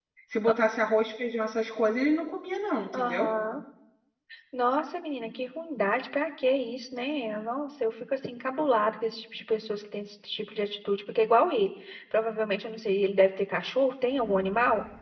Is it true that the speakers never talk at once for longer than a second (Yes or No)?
Yes